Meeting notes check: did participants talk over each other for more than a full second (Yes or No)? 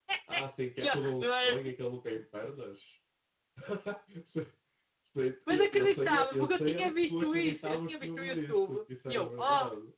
Yes